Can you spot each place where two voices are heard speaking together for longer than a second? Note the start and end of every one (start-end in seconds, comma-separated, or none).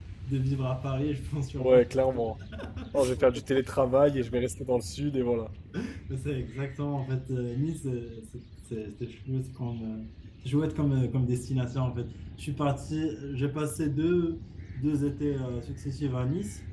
none